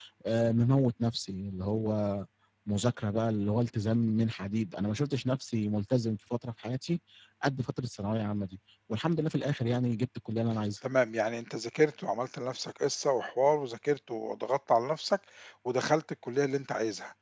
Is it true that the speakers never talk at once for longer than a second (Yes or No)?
Yes